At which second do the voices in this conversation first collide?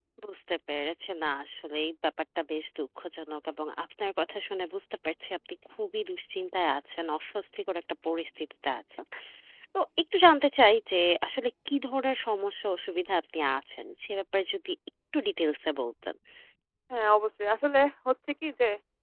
none

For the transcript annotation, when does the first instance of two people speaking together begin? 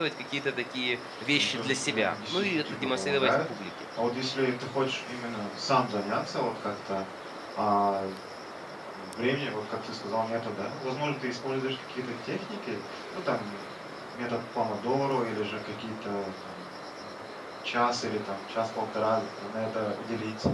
1.3 s

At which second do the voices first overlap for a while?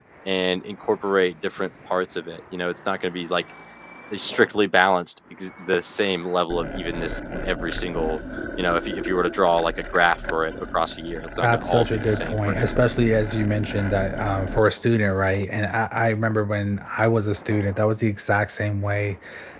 11.4 s

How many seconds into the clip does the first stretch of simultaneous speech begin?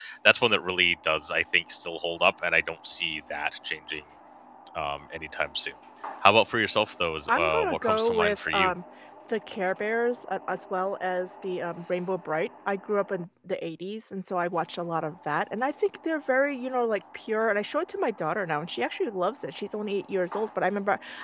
7.3 s

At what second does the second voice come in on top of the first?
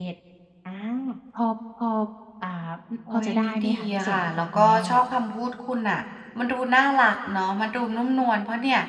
3.1 s

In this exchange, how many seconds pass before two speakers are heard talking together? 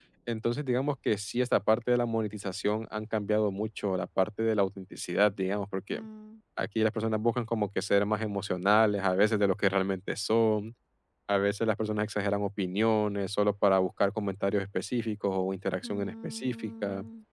15.8 s

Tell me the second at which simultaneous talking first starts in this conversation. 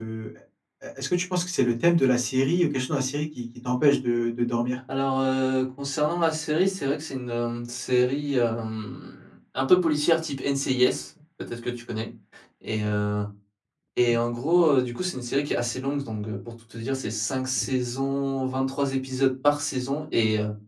none

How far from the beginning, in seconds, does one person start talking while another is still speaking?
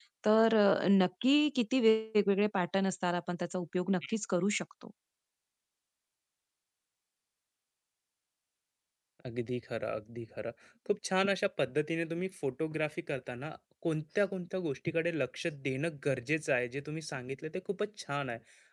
none

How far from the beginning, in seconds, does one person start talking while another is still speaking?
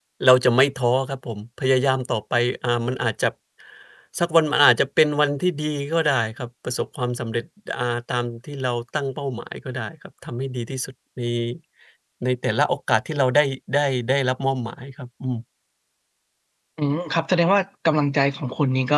none

